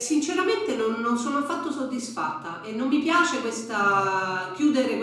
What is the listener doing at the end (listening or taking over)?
listening